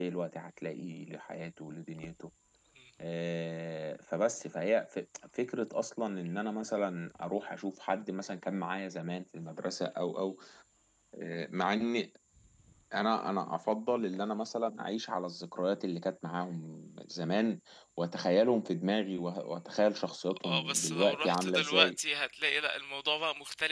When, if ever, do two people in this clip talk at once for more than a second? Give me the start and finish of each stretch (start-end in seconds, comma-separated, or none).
20.4-21.9